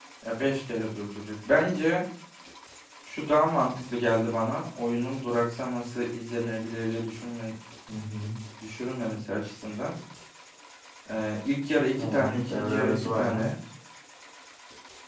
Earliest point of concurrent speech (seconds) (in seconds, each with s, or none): 11.9 s